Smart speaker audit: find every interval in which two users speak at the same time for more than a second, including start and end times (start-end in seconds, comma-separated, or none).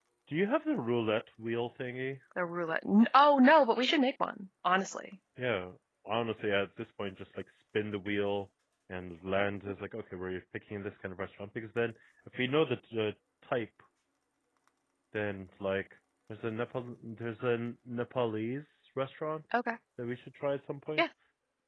none